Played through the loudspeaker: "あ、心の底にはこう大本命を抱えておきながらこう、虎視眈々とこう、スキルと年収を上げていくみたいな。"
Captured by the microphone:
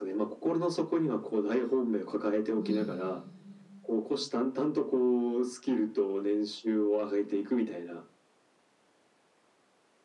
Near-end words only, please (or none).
うん。